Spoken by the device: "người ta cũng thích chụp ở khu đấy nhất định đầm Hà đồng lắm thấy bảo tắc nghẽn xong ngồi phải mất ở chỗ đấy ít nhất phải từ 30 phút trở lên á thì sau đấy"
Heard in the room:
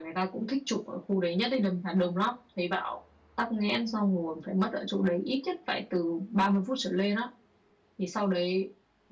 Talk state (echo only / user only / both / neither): echo only